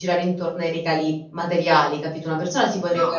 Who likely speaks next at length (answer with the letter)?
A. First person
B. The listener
A